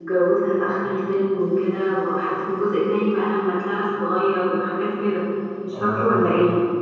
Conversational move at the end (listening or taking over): taking over